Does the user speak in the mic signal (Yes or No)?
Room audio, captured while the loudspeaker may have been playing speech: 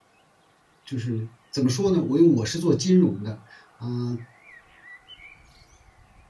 Yes